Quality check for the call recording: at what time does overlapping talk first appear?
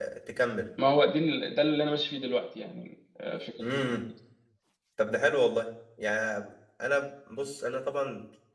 none

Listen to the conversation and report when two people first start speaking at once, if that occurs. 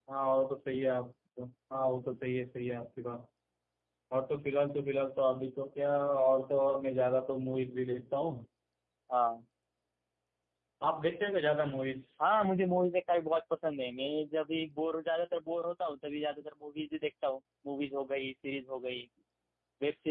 none

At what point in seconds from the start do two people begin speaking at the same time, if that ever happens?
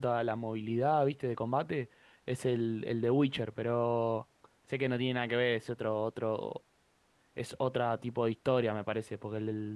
none

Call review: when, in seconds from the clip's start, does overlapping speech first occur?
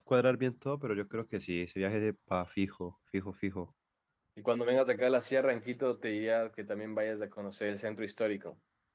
none

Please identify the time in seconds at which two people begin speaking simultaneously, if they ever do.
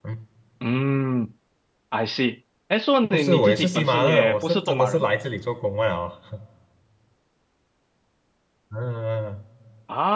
3.0 s

